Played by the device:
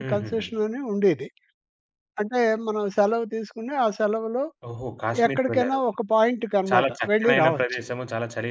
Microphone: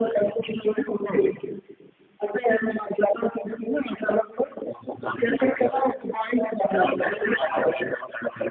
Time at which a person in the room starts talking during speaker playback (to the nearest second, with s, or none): none